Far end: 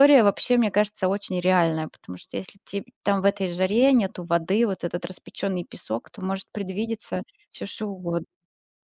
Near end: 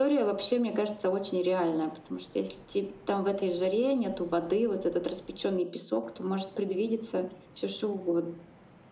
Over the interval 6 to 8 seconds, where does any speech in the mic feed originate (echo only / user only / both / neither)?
echo only